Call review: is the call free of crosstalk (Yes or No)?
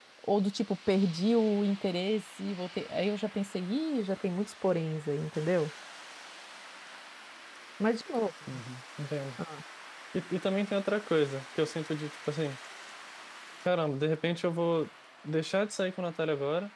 Yes